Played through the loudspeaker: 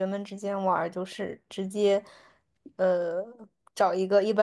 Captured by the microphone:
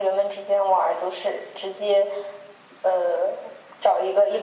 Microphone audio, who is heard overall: echo only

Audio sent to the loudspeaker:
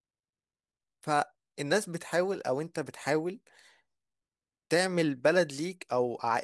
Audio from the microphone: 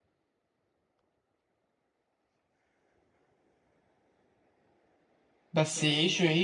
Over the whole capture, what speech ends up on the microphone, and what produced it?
user only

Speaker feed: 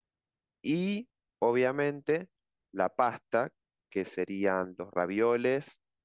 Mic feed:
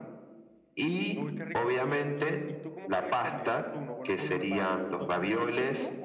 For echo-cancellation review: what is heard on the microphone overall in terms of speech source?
both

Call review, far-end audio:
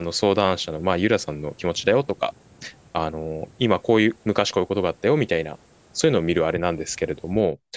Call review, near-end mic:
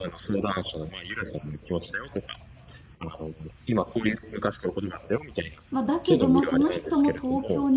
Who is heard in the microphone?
both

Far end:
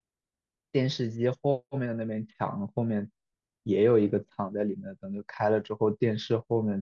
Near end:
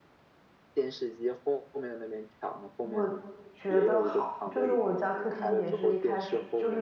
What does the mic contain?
both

